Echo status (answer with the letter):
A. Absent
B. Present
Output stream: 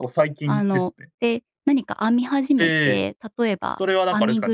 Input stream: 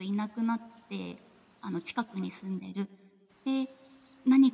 A